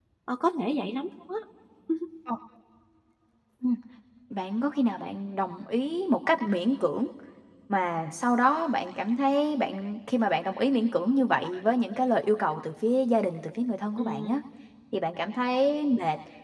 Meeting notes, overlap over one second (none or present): none